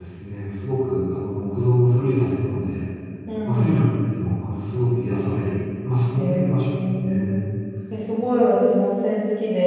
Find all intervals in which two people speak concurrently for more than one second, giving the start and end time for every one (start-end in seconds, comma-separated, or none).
6.2-7.4